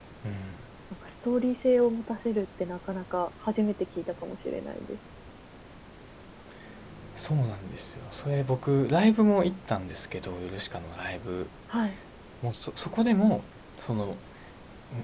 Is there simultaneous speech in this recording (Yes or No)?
No